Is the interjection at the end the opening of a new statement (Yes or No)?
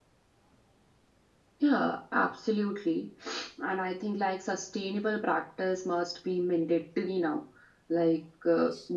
No